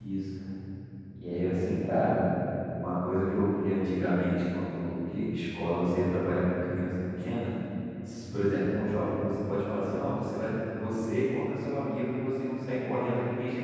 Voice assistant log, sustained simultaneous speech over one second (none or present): none